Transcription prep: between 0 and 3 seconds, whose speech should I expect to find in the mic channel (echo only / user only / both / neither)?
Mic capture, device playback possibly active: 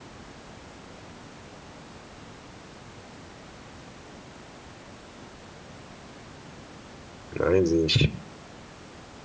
neither